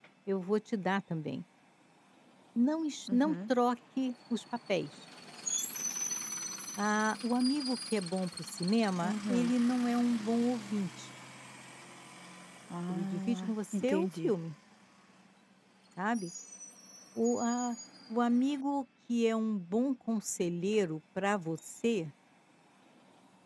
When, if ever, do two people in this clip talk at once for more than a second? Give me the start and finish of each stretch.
12.9-14.3

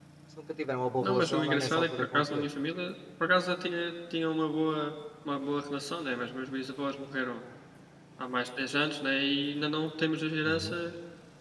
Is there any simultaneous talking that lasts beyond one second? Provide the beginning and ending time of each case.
1.0-2.5

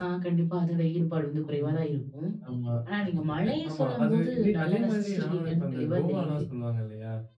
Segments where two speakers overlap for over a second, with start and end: 3.7-6.4

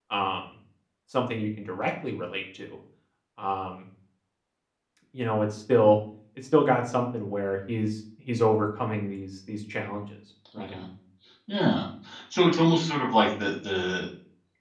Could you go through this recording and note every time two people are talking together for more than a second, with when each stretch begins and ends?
none

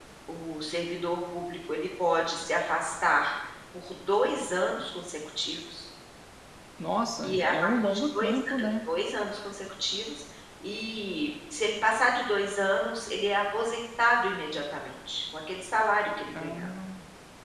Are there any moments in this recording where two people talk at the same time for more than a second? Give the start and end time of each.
7.2-8.7

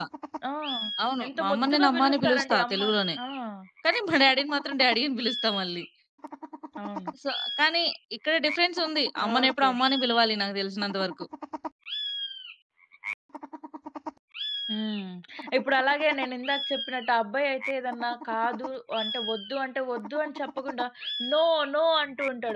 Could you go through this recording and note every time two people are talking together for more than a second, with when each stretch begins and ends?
1.3-2.9

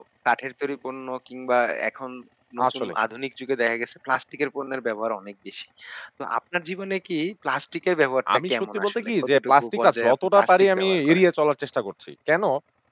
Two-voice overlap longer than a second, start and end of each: 8.5-11.2

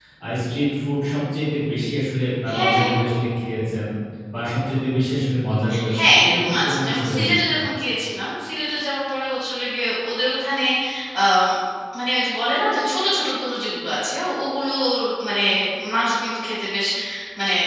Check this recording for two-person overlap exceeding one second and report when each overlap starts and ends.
6.0-7.6

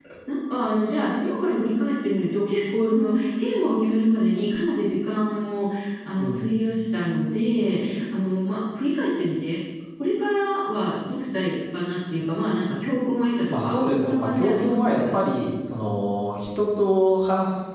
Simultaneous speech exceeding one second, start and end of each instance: 13.5-15.1

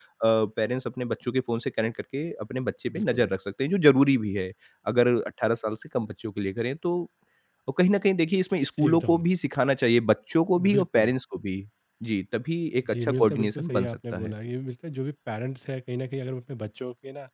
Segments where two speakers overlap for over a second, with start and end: 13.0-14.3

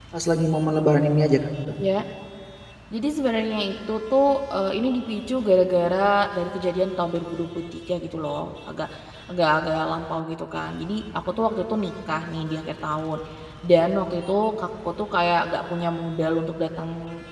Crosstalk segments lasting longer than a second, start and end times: none

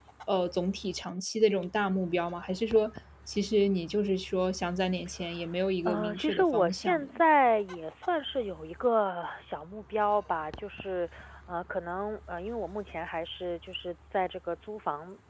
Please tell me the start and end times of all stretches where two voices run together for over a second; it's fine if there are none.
5.8-7.2

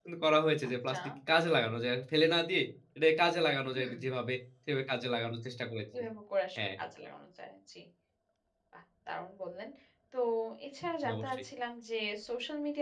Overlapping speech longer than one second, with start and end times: none

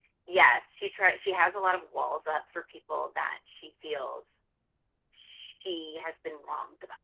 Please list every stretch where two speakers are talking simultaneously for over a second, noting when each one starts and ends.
none

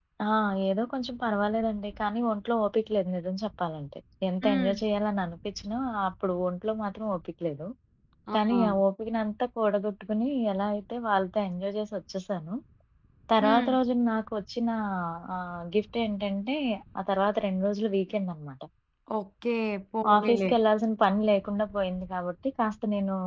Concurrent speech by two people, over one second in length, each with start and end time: none

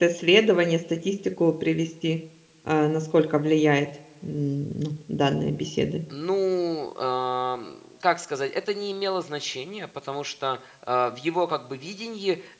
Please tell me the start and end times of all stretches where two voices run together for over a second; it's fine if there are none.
none

